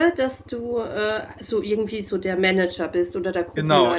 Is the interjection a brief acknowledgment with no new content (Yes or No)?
No